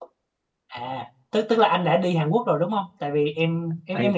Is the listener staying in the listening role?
Yes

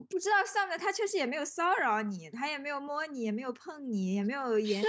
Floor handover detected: Yes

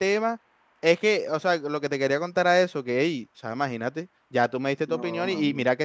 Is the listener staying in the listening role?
Yes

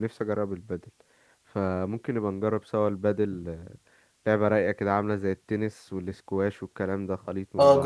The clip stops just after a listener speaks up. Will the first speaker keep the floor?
No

